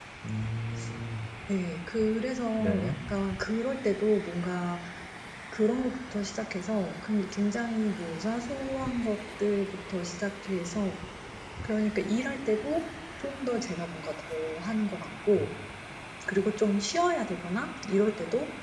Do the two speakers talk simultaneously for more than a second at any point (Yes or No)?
No